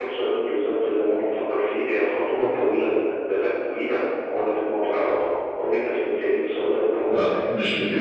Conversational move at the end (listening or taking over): taking over